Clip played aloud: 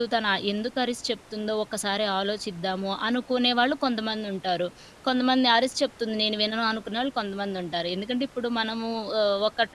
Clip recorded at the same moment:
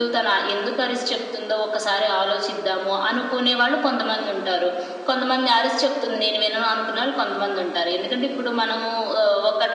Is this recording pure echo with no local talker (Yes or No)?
Yes